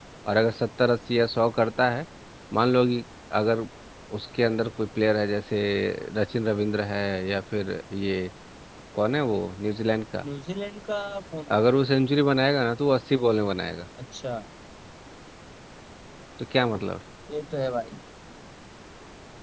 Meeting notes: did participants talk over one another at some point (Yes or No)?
No